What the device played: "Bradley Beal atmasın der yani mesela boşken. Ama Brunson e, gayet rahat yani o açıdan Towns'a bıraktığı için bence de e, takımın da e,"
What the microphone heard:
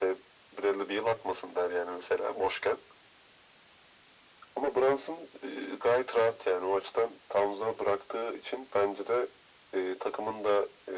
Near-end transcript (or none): none